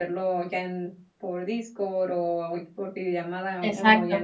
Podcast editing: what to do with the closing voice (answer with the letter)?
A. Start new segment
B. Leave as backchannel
A